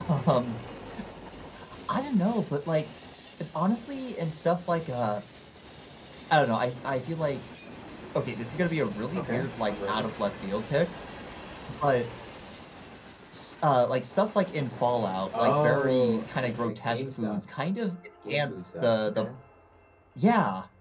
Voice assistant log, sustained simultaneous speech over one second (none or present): present